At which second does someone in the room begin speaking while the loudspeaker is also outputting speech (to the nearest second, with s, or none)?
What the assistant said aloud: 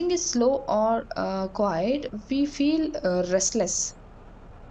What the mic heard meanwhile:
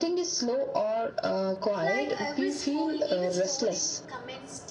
2 s